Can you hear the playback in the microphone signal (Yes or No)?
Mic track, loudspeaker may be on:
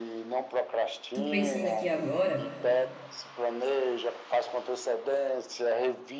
Yes